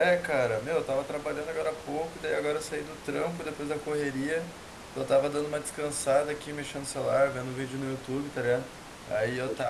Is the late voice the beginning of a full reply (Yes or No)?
No